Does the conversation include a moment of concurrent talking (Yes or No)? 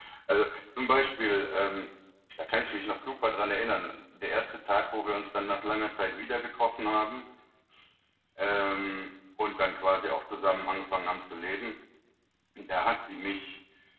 No